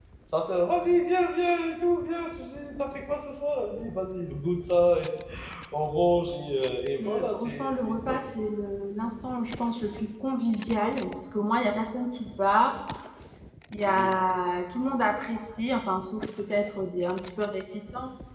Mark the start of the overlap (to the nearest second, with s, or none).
7 s